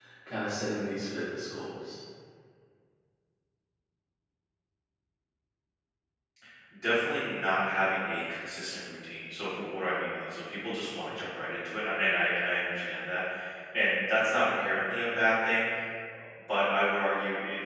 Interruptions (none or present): none